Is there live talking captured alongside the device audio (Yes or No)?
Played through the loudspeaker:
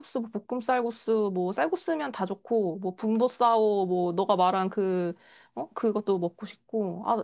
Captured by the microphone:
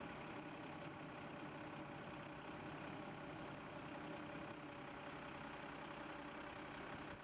No